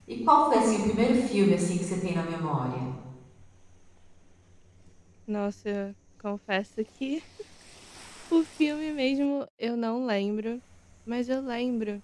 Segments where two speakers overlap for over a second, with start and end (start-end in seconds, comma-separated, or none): none